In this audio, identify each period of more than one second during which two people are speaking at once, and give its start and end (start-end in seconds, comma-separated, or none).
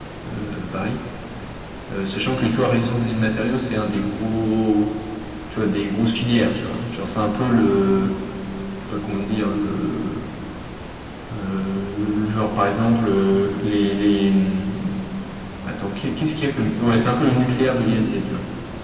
none